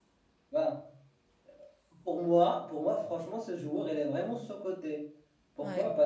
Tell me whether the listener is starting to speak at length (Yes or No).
No